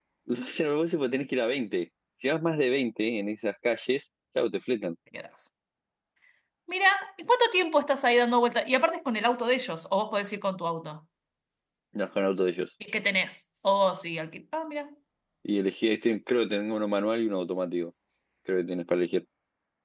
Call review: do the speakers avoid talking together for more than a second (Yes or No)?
Yes